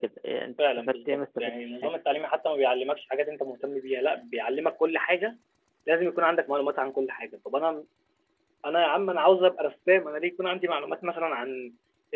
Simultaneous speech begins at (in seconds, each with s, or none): 0.6 s